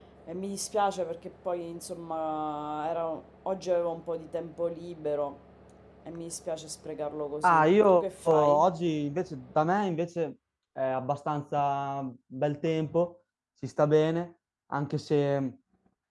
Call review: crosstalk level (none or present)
present